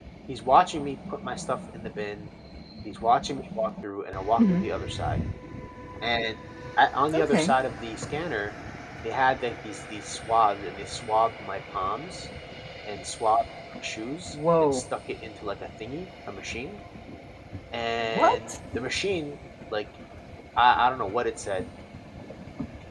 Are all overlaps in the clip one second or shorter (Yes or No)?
Yes